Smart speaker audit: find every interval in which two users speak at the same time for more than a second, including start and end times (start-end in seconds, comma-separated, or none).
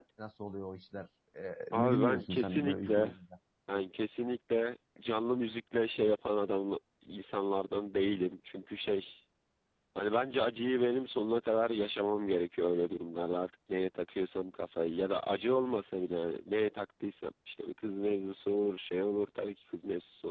1.7-3.1